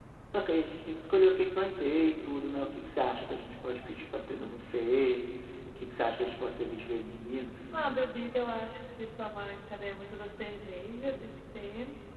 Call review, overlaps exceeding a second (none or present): none